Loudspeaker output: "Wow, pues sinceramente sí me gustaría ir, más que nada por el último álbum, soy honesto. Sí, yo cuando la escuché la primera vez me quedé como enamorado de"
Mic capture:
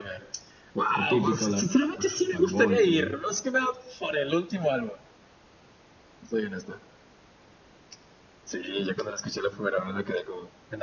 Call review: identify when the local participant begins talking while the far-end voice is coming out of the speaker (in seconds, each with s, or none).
0.9 s